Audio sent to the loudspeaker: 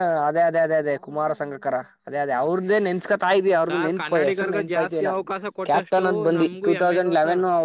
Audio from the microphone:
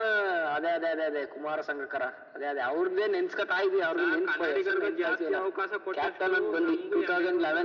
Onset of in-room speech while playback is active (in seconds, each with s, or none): none